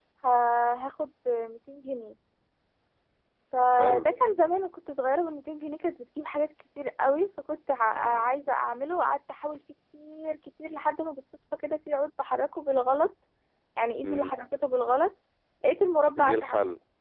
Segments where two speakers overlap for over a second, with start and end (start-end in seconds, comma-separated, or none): none